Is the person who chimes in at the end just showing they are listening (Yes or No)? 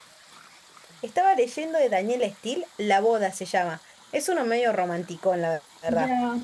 No